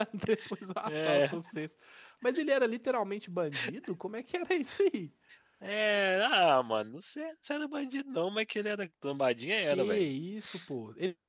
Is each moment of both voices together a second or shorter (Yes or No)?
Yes